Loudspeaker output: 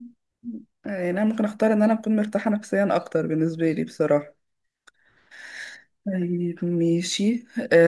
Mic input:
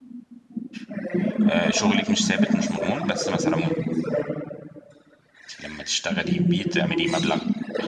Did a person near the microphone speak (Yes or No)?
Yes